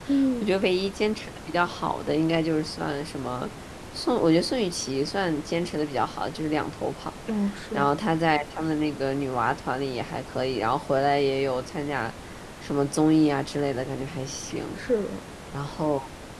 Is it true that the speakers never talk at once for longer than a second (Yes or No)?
Yes